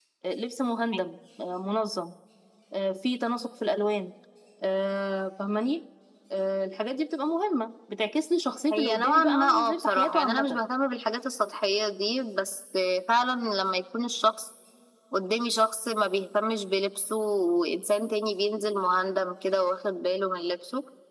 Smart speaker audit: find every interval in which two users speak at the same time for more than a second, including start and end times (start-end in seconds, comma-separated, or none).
8.7-10.6